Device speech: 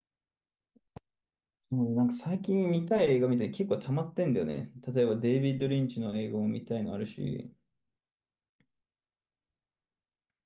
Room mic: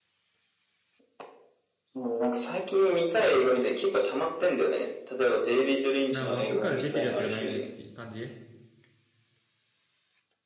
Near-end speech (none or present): present